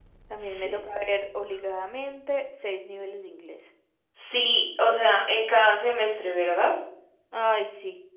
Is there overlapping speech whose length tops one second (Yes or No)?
No